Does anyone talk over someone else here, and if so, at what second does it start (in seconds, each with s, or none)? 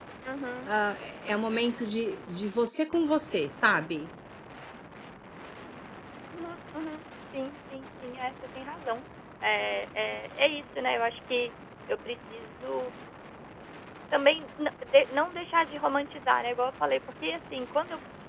none